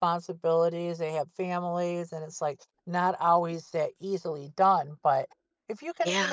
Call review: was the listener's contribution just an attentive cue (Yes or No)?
Yes